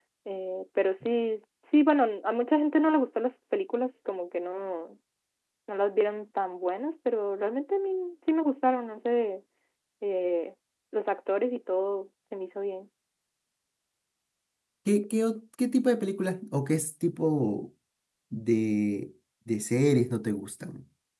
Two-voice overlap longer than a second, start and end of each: none

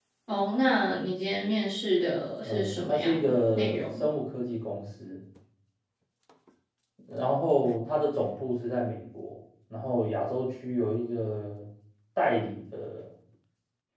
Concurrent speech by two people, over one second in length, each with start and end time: 2.4-4.0

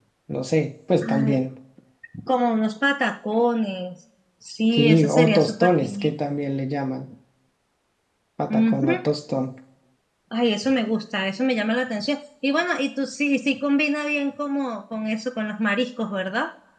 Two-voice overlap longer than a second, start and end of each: 4.7-6.1

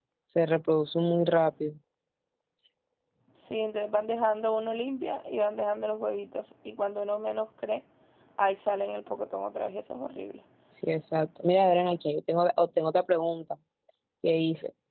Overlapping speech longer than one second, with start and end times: none

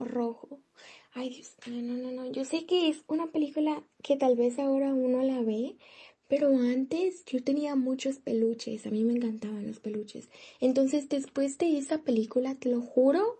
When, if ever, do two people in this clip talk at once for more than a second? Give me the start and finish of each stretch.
none

